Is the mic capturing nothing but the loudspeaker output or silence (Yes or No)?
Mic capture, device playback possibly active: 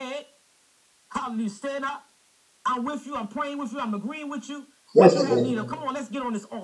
No